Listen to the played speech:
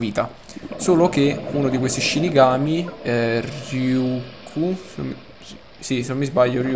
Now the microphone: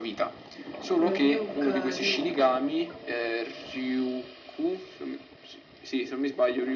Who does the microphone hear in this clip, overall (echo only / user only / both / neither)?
both